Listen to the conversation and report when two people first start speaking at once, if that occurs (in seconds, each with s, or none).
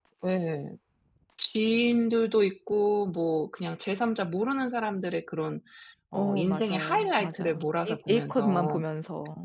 6.1 s